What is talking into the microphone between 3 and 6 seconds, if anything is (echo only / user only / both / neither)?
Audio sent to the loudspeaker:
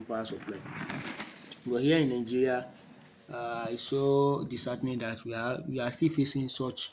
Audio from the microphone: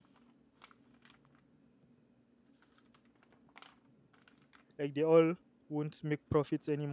user only